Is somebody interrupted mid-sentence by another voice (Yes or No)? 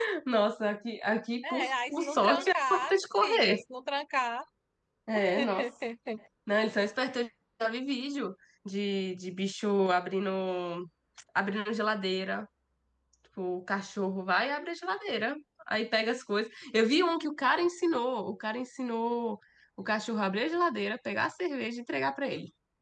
Yes